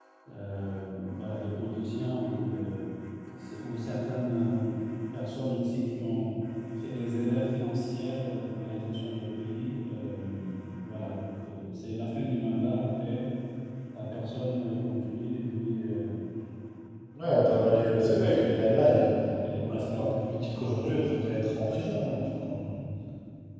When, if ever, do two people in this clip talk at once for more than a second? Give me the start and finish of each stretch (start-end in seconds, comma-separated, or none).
17.2-19.1